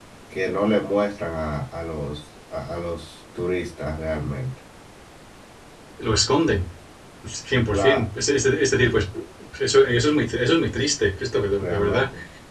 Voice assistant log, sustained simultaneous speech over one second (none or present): none